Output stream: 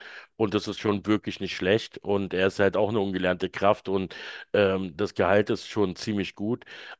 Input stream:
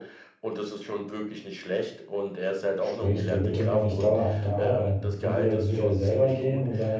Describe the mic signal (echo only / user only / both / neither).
both